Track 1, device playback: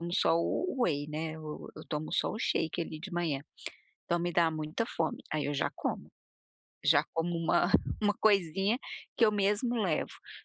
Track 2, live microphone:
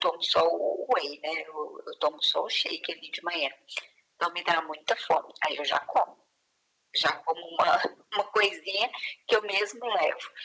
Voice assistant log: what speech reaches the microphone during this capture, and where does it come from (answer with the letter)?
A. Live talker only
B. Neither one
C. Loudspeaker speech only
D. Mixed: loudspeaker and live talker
C